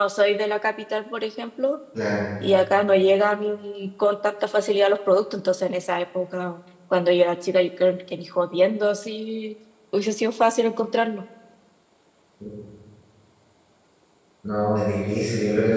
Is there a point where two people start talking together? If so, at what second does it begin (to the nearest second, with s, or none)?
none